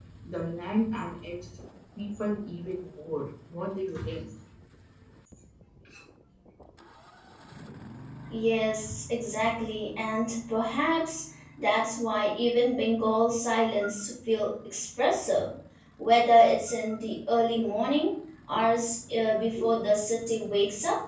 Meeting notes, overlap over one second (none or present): none